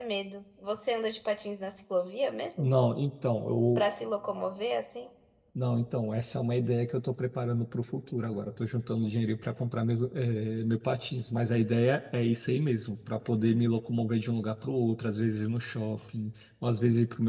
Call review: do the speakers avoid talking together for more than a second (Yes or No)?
Yes